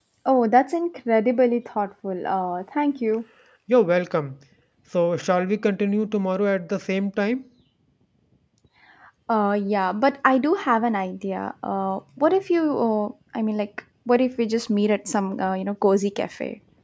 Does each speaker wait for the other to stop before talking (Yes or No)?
Yes